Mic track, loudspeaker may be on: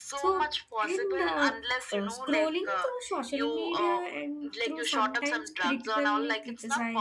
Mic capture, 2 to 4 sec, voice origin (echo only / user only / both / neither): both